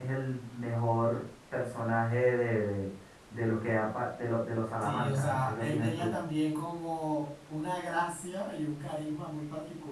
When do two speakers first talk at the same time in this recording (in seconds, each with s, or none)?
4.8 s